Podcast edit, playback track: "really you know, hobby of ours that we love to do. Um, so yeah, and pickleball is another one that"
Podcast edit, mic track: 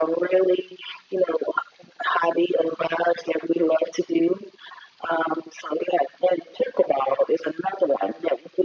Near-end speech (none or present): none